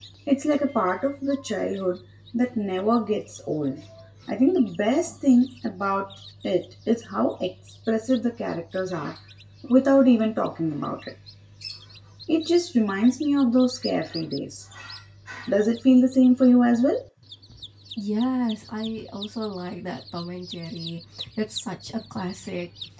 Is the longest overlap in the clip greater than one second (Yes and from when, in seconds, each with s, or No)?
No